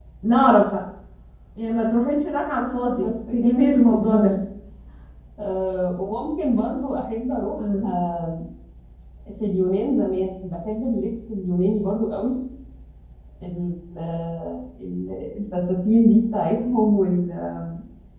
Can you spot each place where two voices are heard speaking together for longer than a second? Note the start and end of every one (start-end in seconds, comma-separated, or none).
3.0-4.3